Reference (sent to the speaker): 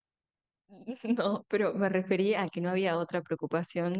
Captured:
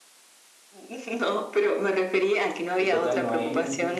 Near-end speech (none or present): present